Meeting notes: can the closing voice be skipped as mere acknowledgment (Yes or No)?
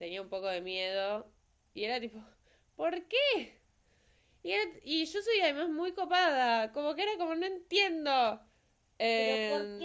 No